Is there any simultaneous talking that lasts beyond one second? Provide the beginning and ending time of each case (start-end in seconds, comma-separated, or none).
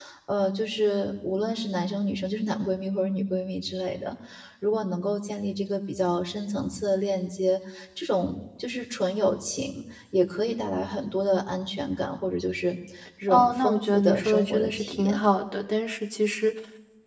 13.3-15.2